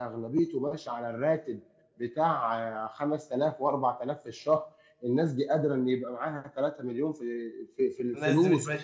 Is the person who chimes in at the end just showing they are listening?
No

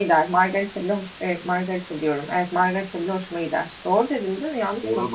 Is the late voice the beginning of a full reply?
Yes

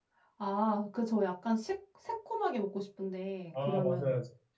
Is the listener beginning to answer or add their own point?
Yes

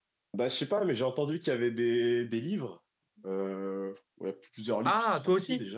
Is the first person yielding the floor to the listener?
Yes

